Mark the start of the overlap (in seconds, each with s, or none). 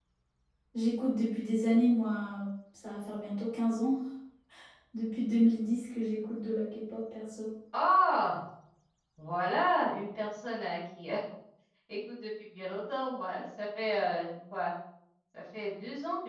none